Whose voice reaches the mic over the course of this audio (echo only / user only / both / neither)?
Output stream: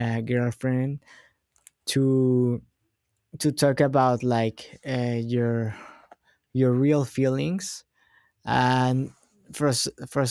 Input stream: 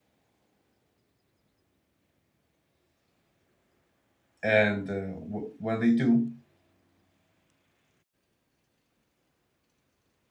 user only